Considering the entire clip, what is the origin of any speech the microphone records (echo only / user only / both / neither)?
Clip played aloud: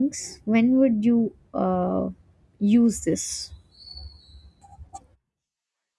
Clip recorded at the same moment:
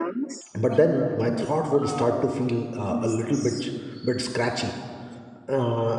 both